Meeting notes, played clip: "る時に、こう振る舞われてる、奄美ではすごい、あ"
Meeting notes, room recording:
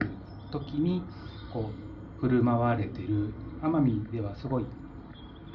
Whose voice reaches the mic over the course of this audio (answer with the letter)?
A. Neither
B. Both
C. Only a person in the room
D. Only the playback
D